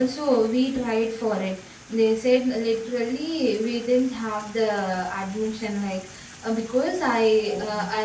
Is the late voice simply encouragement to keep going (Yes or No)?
Yes